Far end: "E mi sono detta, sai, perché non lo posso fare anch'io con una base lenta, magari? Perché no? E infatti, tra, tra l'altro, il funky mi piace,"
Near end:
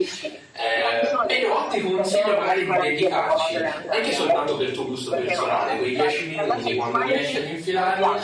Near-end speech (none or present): present